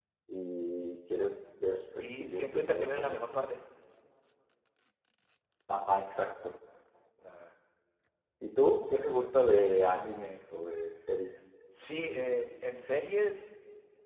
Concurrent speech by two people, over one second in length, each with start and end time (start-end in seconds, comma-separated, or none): 1.6-3.1